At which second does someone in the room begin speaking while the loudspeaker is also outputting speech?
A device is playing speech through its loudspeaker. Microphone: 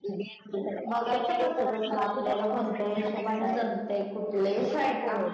0.9 s

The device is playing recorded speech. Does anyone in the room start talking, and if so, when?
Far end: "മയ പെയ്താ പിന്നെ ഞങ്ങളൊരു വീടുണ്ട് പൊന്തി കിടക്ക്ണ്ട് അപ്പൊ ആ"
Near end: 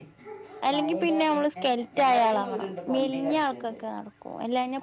0.7 s

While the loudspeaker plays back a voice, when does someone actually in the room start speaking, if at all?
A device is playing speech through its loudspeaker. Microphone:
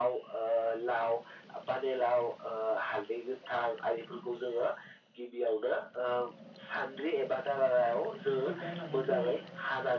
8.3 s

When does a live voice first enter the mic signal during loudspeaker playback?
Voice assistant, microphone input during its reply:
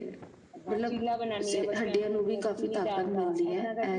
none

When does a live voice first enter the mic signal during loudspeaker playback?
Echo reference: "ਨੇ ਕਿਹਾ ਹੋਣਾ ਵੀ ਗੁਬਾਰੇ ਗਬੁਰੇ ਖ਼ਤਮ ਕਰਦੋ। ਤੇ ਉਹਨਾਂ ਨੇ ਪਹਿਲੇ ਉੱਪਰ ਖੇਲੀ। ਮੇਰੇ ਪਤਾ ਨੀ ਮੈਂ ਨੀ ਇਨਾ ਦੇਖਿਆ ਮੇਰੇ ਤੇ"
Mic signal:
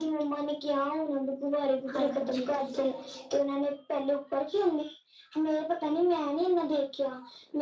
1.9 s

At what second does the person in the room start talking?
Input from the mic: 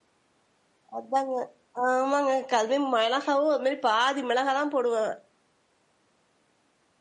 1.0 s

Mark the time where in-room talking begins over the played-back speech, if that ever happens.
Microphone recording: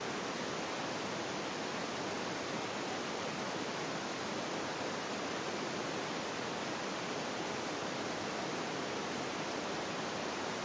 none

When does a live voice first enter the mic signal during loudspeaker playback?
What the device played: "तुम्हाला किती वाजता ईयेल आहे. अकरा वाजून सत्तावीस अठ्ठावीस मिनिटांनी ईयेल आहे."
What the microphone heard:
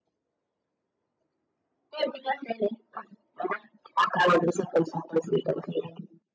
none

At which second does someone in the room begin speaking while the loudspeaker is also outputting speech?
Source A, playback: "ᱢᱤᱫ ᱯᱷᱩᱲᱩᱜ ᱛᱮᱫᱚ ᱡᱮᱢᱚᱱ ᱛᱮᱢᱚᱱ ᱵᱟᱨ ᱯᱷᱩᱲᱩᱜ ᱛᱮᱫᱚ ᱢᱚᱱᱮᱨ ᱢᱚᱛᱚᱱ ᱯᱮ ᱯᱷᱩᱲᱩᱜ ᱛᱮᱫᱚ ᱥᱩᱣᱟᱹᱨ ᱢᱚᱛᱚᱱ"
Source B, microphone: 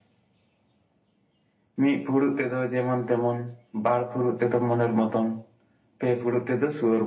none

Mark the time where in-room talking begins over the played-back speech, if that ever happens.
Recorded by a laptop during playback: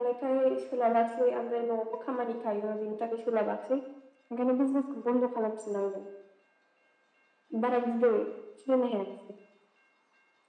none

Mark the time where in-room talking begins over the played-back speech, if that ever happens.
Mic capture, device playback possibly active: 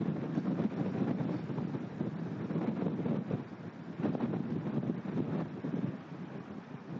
none

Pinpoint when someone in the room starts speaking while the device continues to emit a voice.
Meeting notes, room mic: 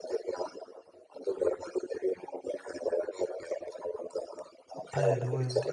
4.7 s

